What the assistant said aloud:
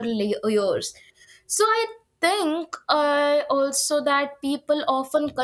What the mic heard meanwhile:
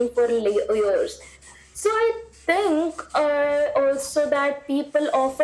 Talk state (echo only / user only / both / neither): echo only